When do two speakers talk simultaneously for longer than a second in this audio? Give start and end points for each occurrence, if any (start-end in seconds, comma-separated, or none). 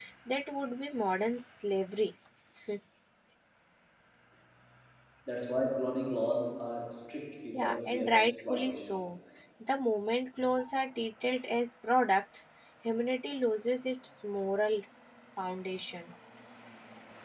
7.6-8.9